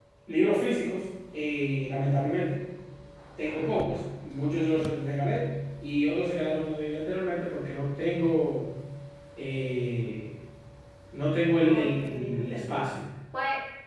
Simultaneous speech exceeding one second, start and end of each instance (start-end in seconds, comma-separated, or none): 11.6-12.9